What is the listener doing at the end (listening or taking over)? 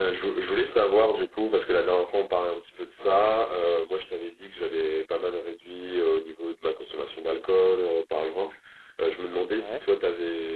listening